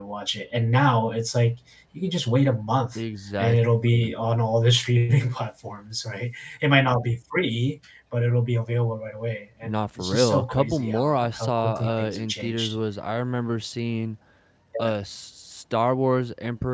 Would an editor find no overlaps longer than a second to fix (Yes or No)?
No